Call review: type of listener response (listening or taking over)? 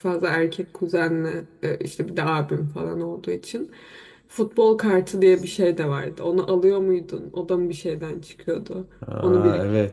taking over